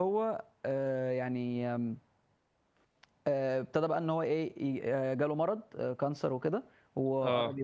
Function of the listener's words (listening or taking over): listening